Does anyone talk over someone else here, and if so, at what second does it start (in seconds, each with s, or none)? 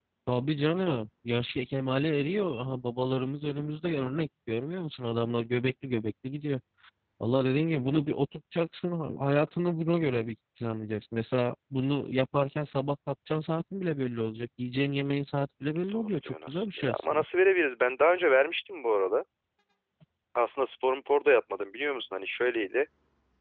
15.9 s